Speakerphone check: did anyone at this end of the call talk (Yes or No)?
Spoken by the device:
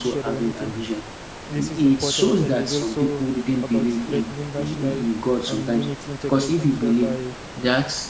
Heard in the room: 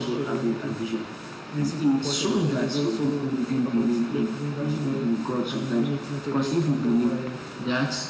No